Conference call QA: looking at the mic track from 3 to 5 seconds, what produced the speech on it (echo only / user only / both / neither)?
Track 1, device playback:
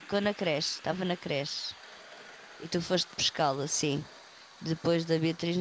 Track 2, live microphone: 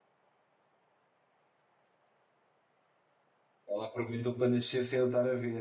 user only